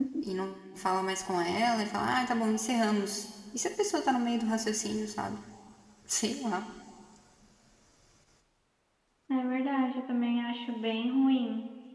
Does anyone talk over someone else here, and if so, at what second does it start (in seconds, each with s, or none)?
none